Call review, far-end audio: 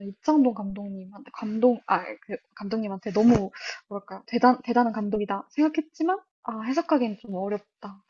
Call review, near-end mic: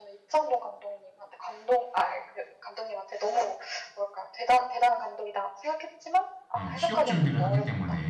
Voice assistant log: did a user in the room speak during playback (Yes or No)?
Yes